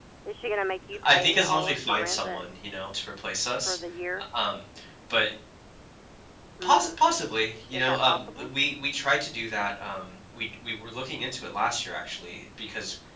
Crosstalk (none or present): present